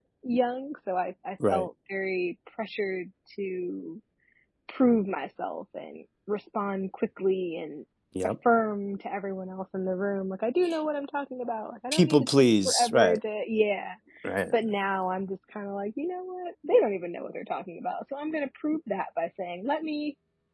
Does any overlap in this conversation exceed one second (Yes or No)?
Yes